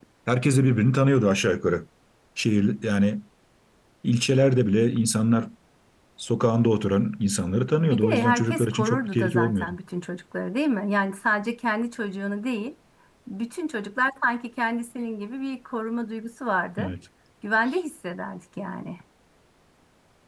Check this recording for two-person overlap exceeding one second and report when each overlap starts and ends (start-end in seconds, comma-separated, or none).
7.8-9.8